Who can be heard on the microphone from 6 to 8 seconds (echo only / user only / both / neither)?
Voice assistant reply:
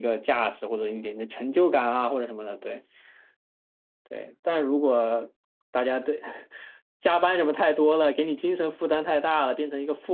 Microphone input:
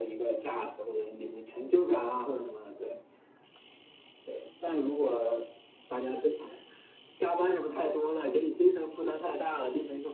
echo only